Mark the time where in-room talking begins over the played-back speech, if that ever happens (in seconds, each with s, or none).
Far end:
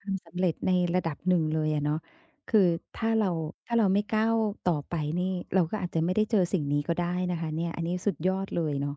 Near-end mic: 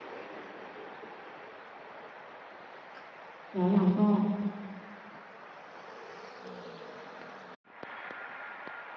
3.5 s